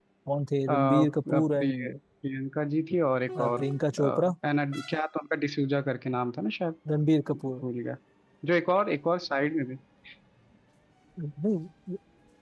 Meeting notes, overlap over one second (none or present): present